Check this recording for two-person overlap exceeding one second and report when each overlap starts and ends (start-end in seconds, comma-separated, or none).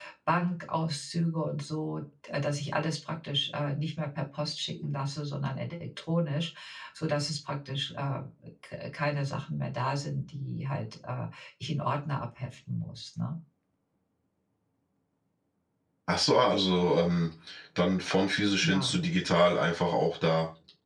none